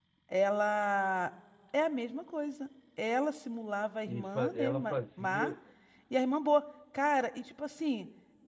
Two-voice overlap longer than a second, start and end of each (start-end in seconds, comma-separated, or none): 4.1-5.5